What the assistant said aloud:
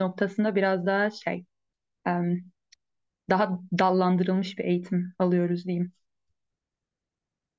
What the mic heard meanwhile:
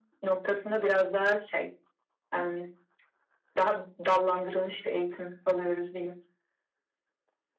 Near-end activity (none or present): none